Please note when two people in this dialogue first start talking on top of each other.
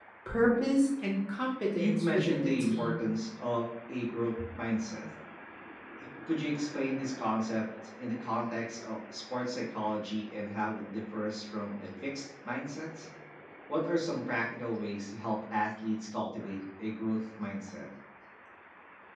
1.8 s

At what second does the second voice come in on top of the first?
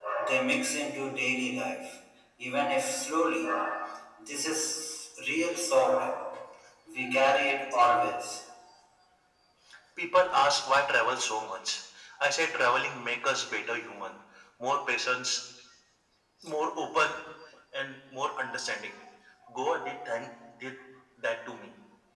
none

